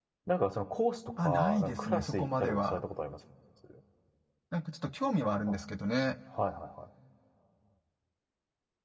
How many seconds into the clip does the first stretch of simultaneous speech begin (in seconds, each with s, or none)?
1.2 s